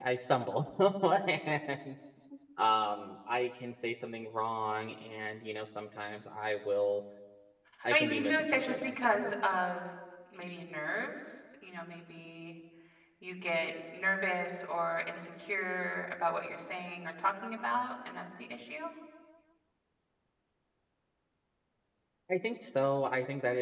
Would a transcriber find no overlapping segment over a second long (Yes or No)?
No